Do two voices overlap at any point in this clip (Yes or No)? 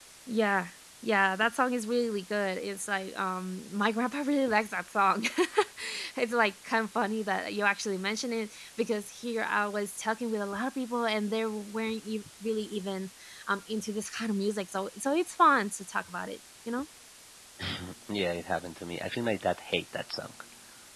No